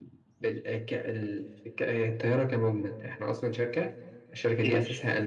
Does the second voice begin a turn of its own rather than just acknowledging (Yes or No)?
No